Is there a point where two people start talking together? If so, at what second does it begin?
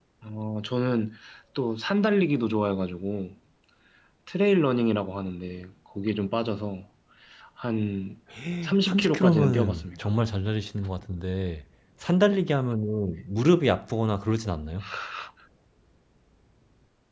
8.8 s

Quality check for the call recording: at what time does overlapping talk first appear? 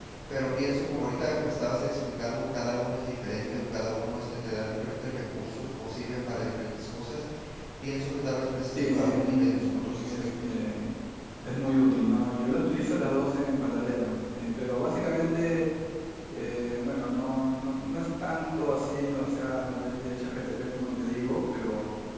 8.8 s

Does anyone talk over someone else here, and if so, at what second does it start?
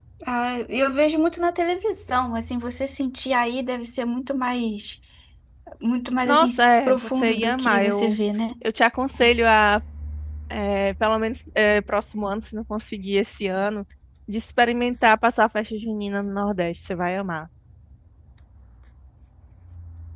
6.2 s

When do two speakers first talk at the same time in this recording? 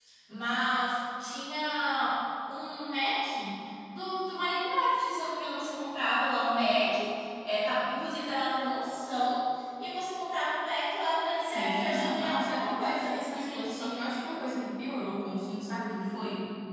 11.4 s

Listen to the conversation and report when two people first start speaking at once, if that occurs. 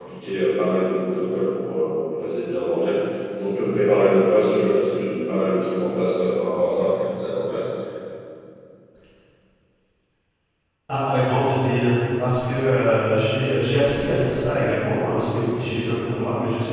none

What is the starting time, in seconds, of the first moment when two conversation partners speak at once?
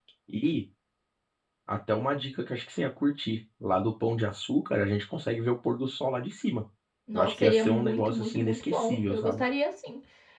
7.1 s

